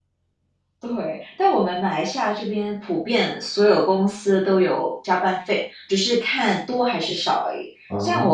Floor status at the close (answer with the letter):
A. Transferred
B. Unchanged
B